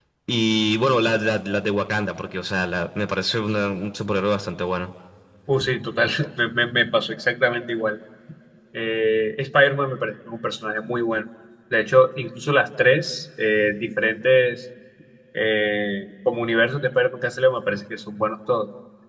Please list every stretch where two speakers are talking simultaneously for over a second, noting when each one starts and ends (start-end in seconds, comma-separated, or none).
none